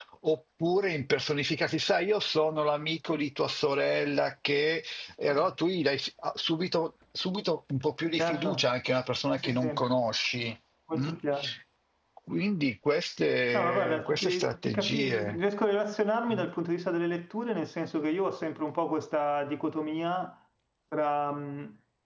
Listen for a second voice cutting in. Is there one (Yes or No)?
Yes